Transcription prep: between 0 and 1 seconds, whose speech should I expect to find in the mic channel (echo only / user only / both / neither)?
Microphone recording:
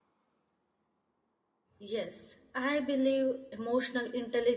neither